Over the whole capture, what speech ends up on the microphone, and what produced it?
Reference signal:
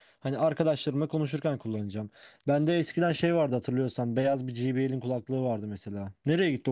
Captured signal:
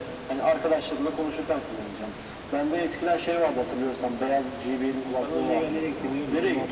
both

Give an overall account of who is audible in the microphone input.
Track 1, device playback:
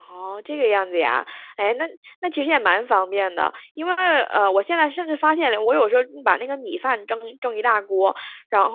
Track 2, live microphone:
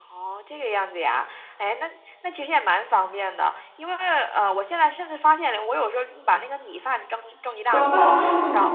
both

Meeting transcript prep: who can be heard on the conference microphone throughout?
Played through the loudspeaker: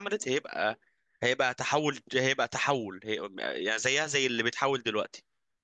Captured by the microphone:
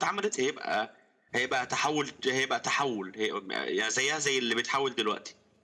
echo only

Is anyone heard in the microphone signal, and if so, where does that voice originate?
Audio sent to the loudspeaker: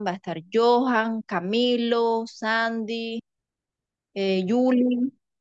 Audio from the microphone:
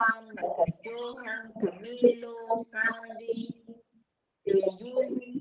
echo only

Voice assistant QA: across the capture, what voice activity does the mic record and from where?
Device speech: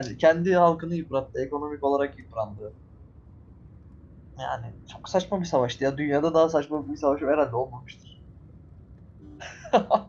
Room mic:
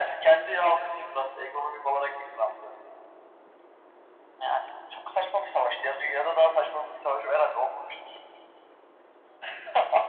echo only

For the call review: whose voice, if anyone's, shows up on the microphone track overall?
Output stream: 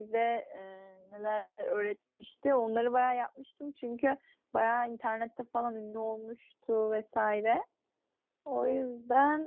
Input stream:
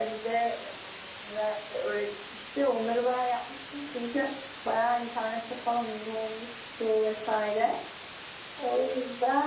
echo only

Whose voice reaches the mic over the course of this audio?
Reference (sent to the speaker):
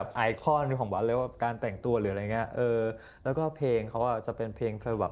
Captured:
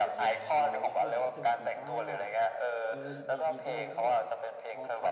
both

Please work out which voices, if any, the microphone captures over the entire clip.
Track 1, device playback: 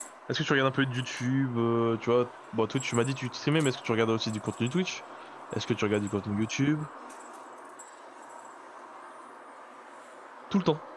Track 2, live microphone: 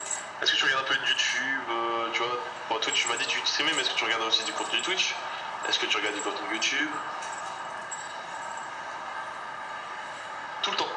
echo only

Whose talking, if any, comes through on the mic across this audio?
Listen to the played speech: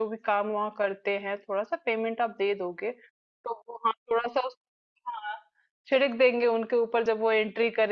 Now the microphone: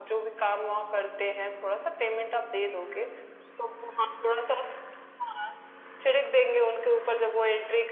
echo only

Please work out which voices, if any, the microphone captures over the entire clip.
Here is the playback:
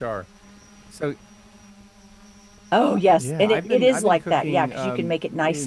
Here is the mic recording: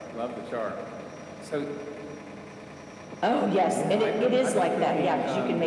echo only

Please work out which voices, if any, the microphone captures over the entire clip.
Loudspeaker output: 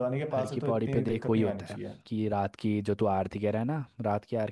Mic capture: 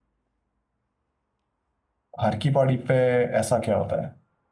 user only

